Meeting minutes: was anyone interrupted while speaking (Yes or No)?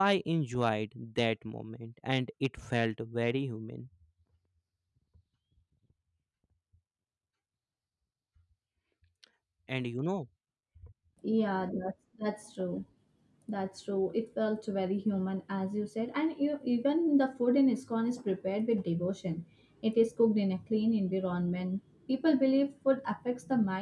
No